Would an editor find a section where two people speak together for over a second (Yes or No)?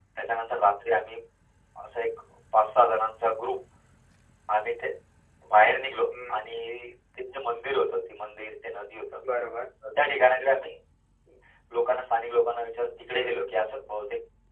No